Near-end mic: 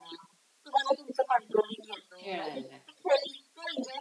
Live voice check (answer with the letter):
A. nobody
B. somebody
B